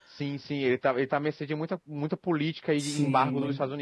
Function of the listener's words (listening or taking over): taking over